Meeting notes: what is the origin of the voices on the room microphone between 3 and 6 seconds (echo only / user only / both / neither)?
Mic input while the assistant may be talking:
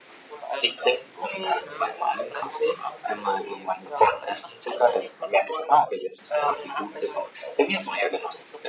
echo only